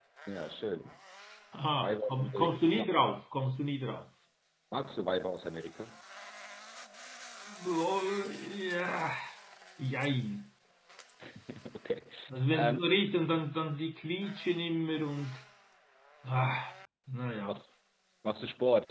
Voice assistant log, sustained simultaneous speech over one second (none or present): present